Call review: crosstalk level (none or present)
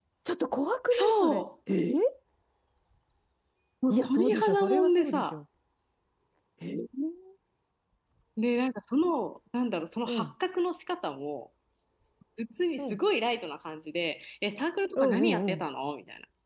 present